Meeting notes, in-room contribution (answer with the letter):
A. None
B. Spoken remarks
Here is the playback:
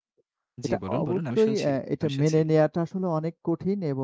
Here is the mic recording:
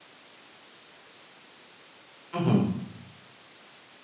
B